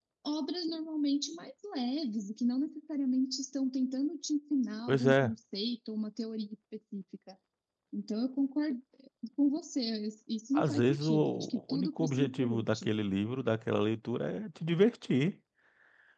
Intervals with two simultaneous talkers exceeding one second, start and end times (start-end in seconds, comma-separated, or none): 10.6-12.9